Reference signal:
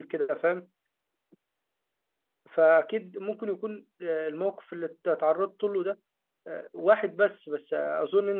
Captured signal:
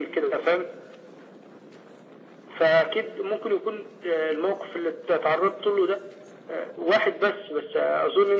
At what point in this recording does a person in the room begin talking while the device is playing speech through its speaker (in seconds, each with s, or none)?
none